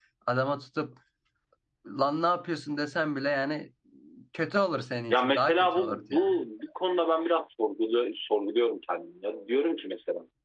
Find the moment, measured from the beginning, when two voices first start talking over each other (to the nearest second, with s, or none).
5 s